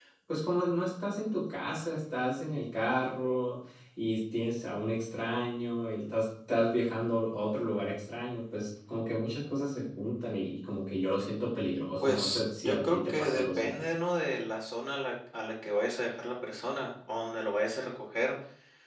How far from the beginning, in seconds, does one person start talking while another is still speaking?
12 s

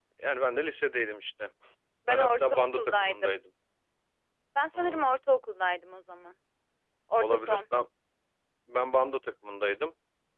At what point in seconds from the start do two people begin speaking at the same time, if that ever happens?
2 s

